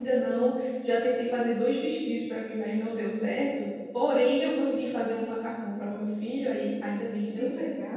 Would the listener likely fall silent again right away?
No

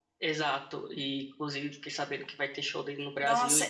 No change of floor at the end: No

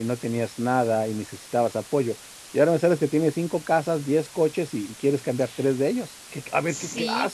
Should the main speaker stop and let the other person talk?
Yes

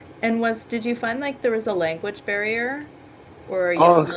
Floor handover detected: Yes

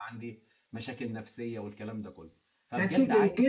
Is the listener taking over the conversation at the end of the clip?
Yes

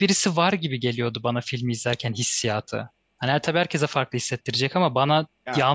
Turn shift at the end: No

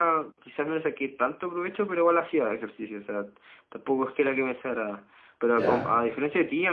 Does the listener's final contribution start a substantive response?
No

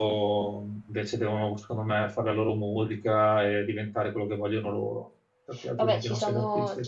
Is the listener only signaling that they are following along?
No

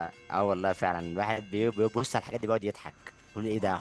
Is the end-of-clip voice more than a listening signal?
No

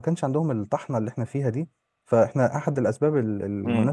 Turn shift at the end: Yes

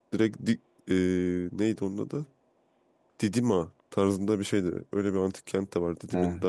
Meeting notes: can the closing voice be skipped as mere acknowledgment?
Yes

